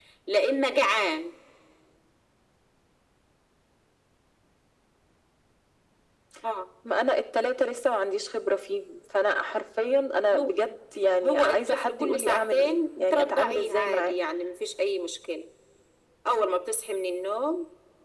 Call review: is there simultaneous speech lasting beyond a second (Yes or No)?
Yes